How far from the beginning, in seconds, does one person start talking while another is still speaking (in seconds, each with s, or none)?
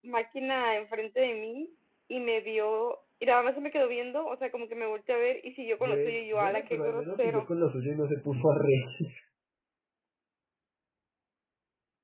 5.8 s